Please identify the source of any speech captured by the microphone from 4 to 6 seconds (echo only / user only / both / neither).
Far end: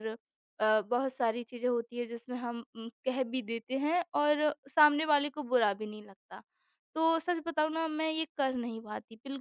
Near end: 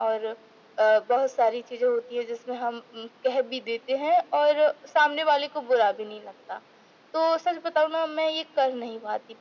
echo only